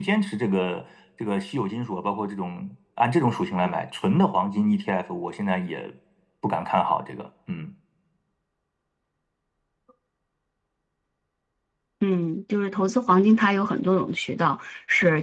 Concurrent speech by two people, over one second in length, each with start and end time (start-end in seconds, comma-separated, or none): none